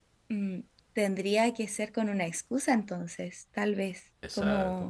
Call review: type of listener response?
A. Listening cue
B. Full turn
B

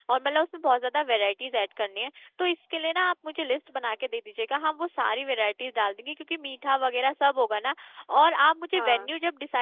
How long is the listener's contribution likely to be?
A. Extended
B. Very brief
B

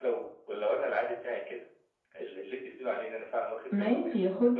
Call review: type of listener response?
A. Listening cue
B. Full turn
B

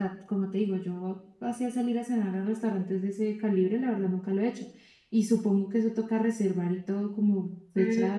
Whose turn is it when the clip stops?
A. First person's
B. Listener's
B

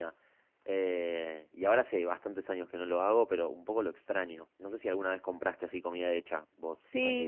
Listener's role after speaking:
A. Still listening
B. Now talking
B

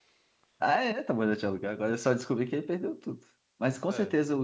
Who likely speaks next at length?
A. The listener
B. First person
B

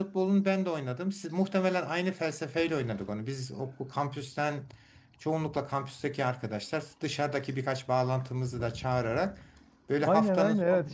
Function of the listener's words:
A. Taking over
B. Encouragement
A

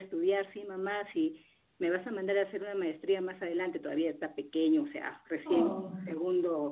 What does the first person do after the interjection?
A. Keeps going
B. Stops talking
A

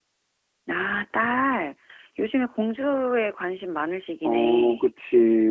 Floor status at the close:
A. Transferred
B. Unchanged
A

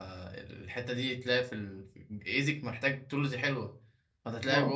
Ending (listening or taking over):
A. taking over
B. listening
B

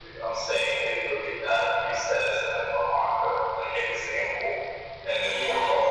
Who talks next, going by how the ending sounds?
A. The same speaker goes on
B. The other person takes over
A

